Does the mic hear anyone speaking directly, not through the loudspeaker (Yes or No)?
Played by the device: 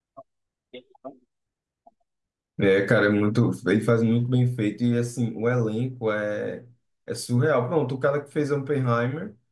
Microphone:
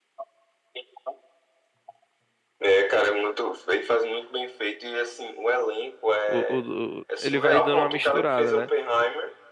Yes